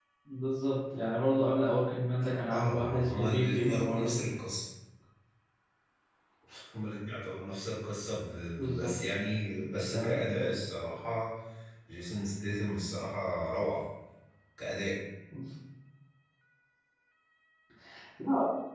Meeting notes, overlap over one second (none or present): present